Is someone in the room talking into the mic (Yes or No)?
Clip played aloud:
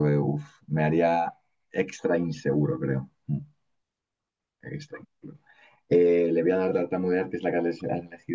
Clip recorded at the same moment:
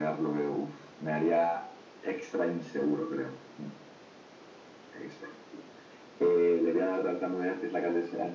No